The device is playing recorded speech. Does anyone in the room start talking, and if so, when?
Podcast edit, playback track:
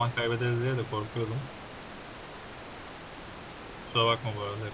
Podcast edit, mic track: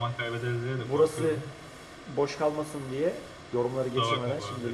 0.8 s

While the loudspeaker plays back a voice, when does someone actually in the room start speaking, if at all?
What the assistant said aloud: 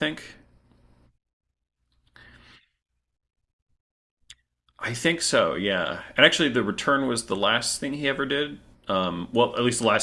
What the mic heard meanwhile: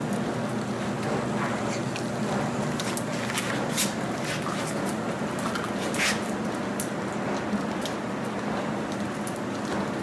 none

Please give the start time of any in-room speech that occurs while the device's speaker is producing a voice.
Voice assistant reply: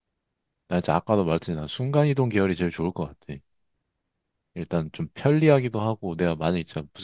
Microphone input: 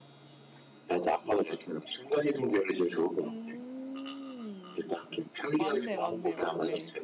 3.2 s

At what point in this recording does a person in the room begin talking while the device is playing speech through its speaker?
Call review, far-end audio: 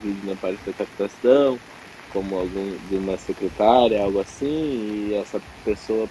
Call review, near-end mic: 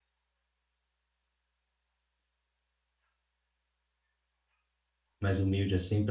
5.2 s

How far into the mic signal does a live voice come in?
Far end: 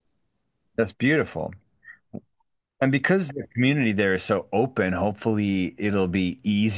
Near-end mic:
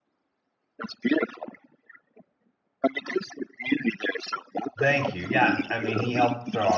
4.8 s

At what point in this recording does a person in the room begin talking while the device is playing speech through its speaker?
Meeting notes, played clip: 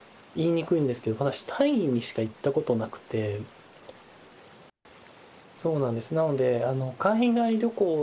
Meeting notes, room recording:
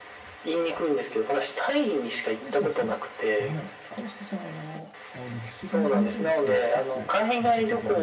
2.4 s

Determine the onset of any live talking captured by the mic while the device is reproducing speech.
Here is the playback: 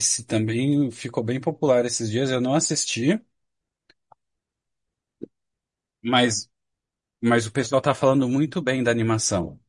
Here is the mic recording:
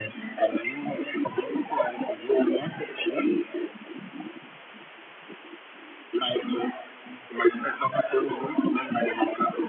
none

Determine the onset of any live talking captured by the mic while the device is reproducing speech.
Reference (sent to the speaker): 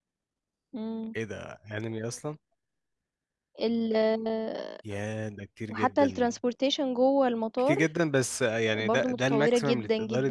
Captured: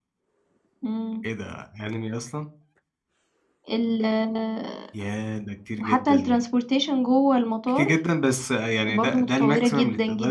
none

